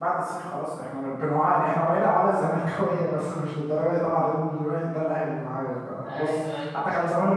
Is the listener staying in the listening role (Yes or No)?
Yes